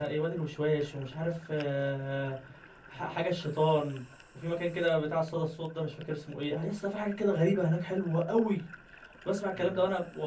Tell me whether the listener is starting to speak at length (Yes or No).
No